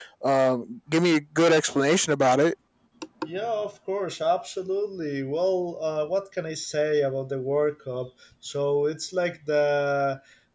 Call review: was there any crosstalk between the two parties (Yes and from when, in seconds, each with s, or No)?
No